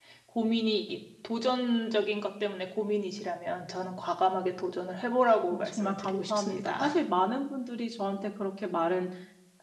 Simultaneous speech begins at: 5.5 s

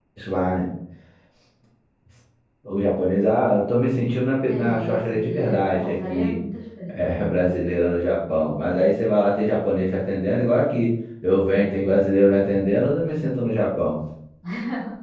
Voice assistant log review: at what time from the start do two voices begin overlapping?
4.5 s

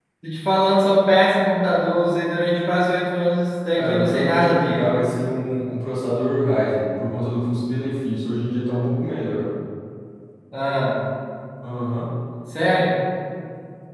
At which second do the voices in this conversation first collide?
3.8 s

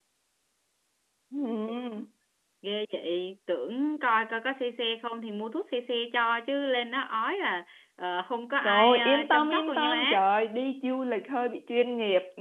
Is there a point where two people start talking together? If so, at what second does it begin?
8.6 s

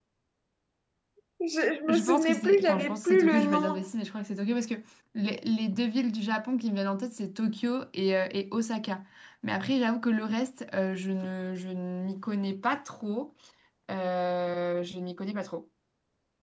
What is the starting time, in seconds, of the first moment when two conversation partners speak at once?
1.9 s

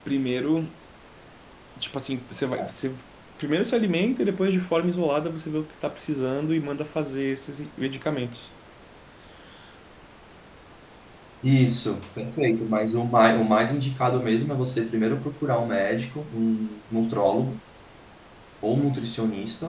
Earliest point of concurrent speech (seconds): none

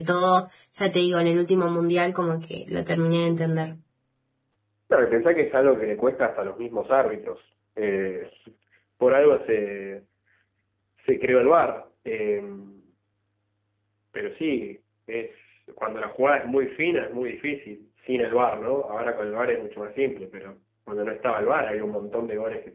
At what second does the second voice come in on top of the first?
none

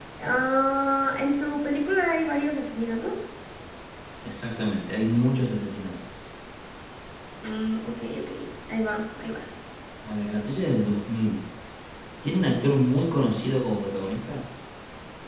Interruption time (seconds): none

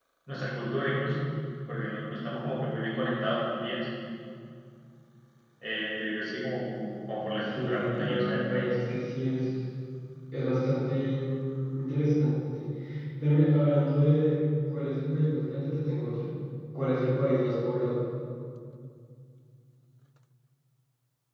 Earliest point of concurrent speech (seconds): 7.5 s

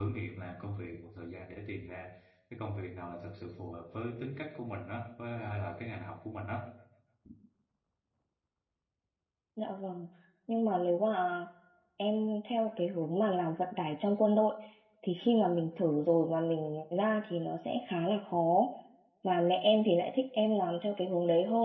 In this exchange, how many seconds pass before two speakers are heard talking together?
none

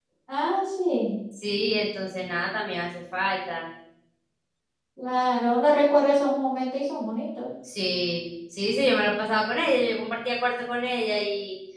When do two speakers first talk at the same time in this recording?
none

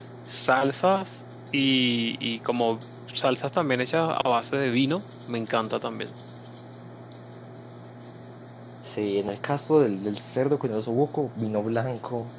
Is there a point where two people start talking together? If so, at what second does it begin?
none

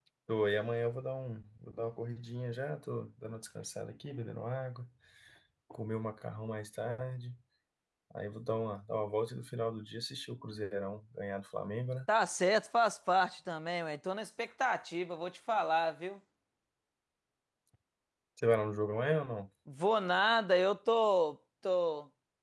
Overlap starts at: none

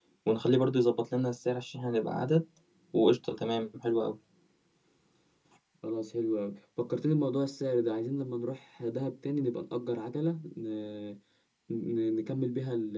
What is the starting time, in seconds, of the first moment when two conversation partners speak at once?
none

